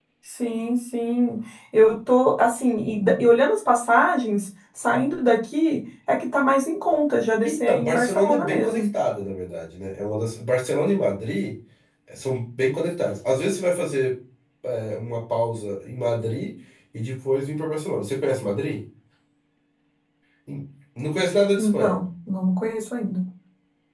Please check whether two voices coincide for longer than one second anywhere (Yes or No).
Yes